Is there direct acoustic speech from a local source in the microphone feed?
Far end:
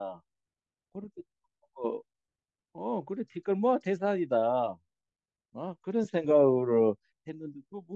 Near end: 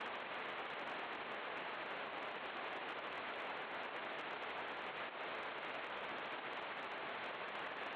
No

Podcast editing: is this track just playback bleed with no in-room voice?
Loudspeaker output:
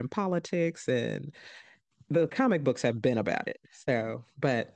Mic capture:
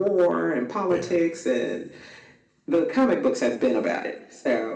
No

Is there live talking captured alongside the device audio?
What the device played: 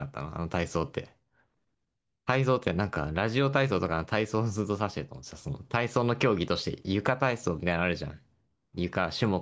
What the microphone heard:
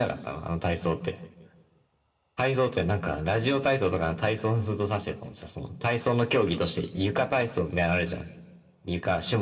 No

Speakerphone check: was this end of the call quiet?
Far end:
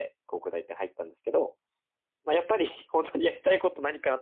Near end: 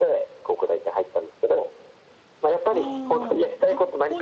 No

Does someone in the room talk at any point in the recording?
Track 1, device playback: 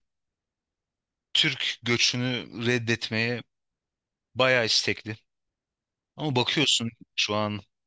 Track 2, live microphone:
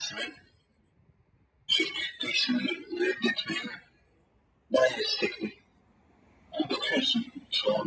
No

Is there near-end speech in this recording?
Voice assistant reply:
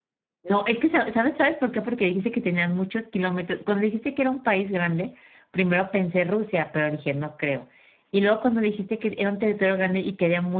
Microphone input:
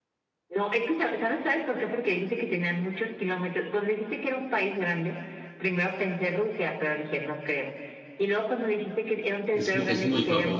Yes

